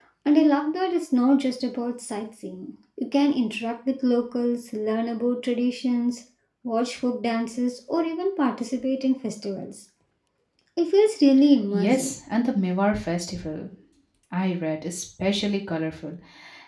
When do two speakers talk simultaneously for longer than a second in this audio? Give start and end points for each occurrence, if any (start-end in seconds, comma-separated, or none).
none